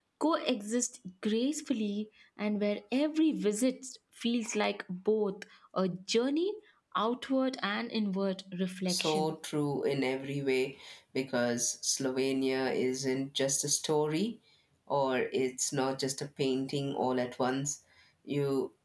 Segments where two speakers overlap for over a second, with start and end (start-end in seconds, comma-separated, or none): none